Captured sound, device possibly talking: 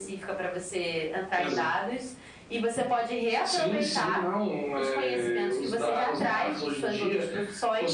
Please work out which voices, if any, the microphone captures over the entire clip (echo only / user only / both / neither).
echo only